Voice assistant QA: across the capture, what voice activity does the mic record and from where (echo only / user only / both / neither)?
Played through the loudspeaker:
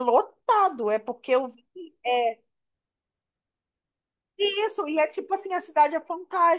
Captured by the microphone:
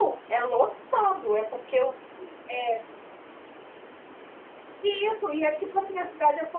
echo only